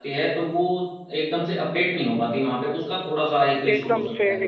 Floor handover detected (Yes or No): Yes